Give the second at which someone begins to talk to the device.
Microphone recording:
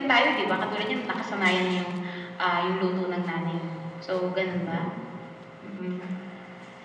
none

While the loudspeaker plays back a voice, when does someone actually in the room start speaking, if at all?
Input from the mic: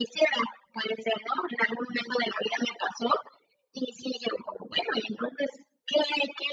none

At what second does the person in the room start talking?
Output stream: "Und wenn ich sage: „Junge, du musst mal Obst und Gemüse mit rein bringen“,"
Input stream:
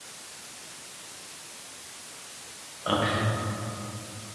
2.9 s

